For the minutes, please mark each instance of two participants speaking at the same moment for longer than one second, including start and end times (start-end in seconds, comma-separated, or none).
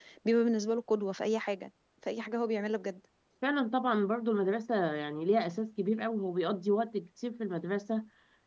none